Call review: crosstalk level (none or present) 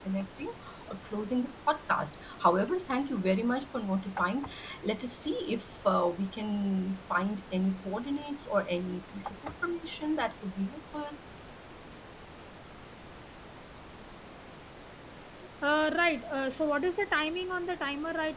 none